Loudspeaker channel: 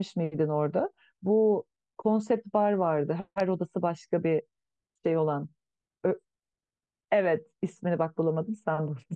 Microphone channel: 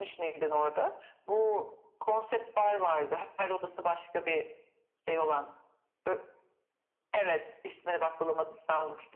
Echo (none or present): present